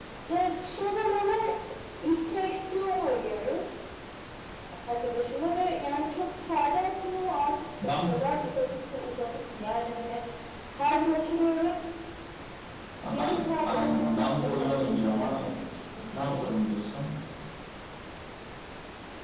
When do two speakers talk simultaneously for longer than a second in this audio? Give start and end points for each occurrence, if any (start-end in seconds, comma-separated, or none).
13.0-15.4